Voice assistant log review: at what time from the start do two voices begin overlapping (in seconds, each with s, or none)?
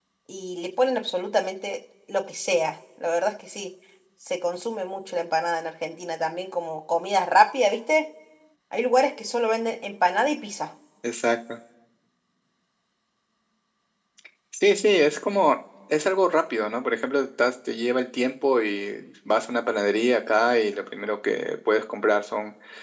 none